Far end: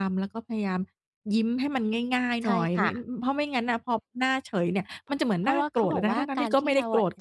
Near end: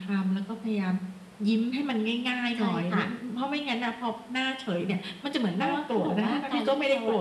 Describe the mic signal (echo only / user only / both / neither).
echo only